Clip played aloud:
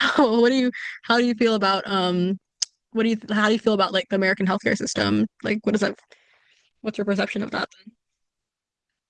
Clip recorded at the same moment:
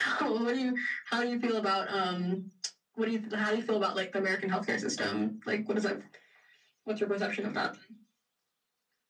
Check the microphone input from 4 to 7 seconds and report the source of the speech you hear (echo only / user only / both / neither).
echo only